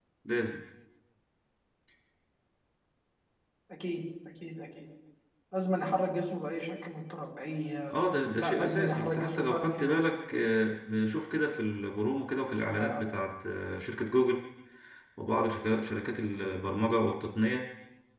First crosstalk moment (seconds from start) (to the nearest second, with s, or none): 8 s